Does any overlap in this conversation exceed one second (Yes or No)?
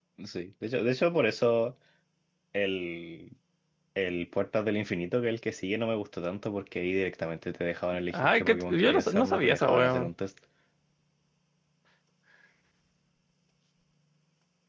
Yes